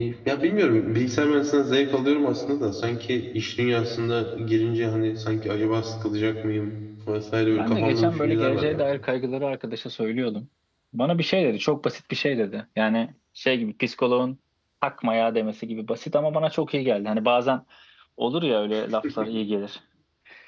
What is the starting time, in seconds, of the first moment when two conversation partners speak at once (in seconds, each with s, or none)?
7.5 s